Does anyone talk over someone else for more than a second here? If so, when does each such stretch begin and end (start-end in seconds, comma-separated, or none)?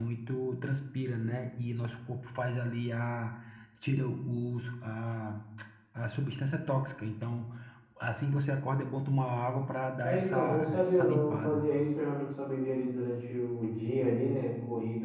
10.0-11.7